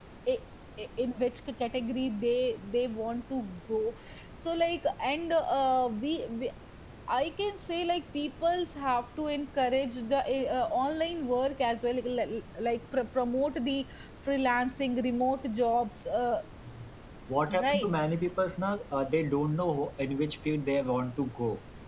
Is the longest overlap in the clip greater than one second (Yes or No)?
No